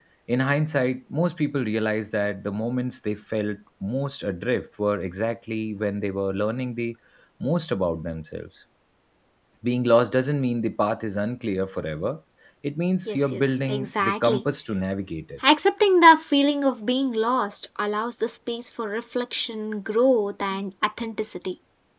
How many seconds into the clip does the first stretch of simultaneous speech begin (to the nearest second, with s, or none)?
13 s